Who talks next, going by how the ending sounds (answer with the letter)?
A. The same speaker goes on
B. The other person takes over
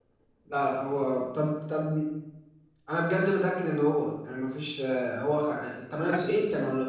A